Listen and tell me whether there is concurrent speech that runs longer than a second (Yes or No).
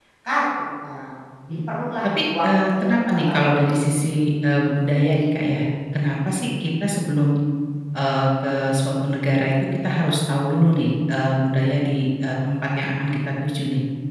Yes